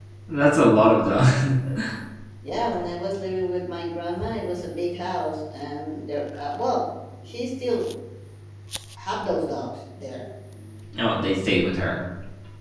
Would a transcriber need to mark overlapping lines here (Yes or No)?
No